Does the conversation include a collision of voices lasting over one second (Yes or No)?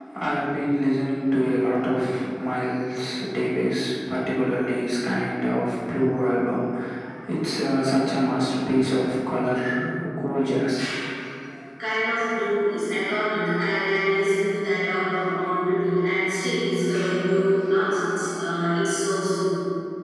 No